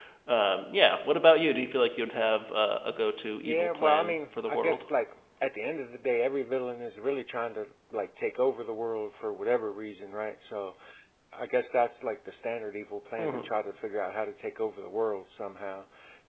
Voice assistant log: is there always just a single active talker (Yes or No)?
No